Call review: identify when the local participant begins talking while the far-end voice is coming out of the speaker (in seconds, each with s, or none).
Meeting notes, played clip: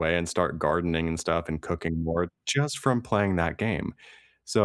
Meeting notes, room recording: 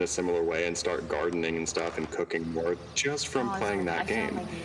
3.4 s